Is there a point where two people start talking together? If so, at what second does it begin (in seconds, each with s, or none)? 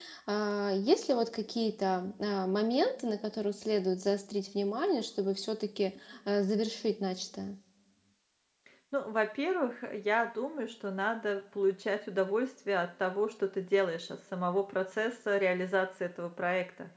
none